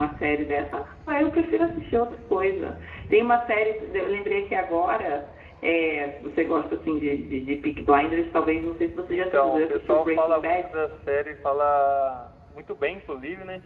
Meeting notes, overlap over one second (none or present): present